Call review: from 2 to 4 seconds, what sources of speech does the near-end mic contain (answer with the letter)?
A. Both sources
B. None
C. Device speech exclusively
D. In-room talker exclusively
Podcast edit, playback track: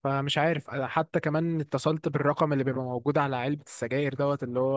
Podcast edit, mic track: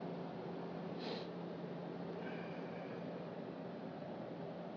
B